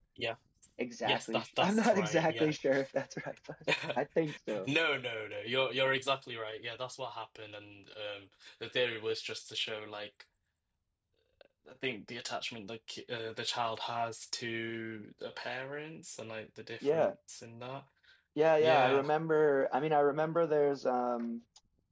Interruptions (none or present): present